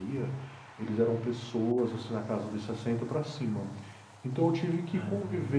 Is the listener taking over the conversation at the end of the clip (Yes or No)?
No